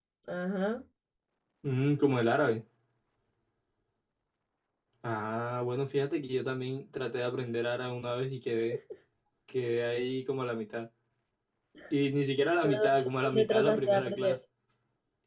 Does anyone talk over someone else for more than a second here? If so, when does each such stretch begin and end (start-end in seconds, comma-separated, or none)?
12.6-14.4